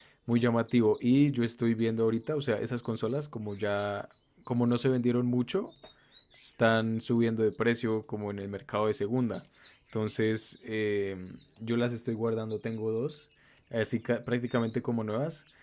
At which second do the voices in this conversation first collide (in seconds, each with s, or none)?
none